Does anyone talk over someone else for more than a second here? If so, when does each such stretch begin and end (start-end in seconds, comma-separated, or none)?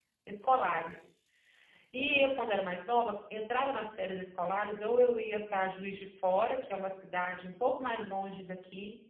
none